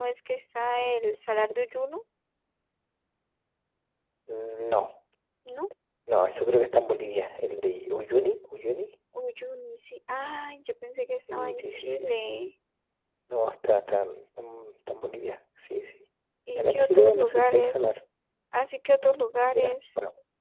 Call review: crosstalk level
present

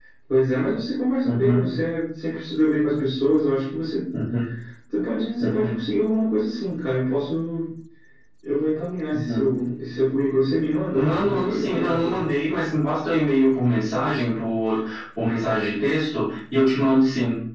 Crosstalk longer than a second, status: present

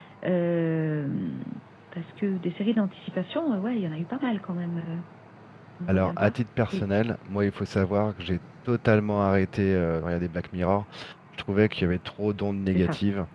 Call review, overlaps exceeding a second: none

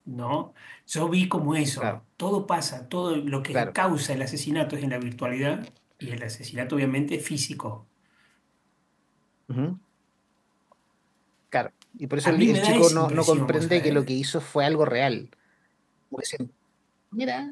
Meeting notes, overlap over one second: present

